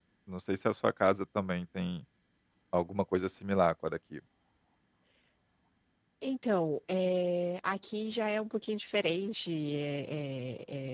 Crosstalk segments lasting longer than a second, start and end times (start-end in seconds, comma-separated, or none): none